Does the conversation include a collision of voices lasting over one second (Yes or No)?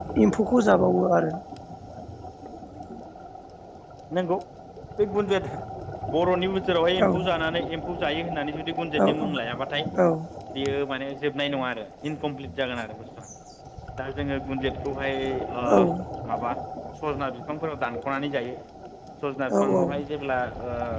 No